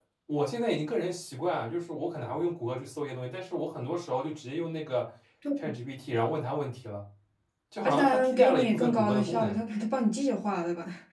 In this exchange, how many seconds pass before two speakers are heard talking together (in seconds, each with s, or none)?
7.8 s